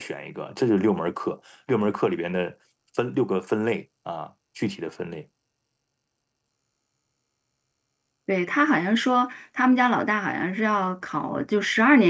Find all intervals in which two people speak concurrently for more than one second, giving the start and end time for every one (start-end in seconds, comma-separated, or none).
none